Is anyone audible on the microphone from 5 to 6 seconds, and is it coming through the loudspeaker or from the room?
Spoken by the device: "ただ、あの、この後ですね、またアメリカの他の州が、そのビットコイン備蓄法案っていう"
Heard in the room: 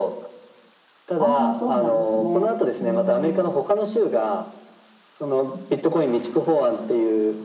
echo only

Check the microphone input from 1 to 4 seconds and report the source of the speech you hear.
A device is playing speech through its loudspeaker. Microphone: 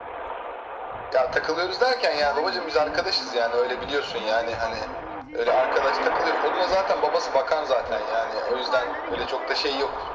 both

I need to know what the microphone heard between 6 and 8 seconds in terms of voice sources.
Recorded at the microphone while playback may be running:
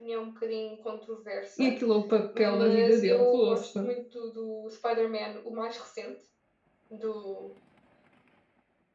echo only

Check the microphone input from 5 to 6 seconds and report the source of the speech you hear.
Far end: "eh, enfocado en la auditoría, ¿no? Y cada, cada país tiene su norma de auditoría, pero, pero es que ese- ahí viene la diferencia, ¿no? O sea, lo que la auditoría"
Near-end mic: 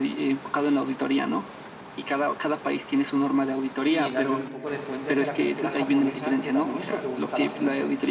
both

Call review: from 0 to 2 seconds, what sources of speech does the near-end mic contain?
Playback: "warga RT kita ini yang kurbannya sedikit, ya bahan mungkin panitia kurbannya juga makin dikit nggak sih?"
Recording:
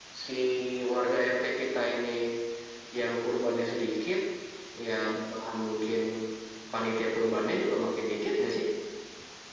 echo only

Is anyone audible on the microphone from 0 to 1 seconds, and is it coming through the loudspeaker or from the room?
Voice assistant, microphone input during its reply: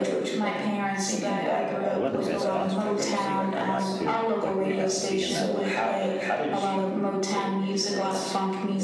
echo only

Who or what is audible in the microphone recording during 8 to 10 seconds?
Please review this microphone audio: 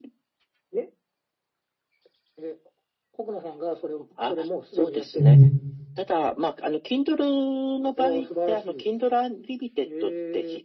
echo only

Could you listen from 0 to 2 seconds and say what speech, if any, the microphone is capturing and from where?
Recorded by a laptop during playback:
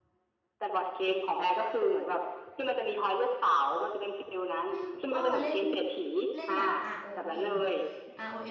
echo only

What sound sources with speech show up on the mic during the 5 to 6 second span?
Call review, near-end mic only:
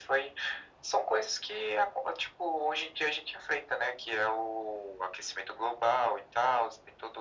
echo only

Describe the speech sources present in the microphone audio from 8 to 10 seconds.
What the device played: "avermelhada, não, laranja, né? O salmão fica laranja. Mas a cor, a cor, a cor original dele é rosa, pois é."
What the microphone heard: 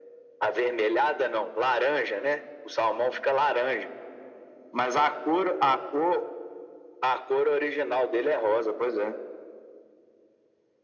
echo only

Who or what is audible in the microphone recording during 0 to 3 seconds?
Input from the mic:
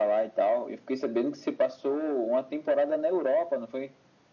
echo only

